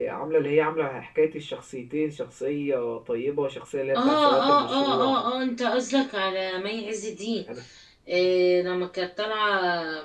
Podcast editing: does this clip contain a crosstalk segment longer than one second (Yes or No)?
Yes